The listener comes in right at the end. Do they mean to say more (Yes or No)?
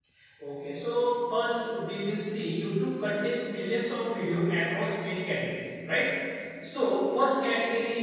No